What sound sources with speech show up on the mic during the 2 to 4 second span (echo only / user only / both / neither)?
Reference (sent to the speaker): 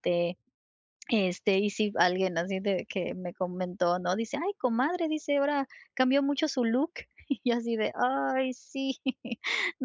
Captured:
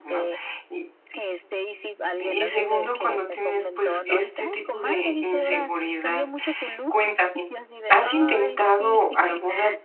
both